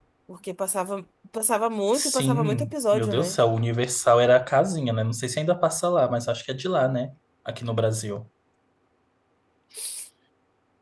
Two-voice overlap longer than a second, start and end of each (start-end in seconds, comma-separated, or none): 1.9-3.4